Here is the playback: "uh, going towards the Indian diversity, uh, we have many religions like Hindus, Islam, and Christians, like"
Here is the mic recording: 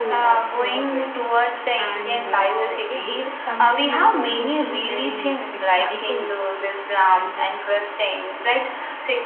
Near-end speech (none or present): present